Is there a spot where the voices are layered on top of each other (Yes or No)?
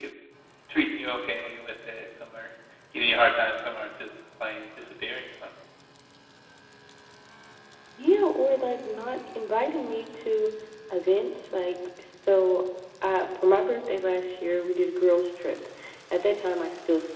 No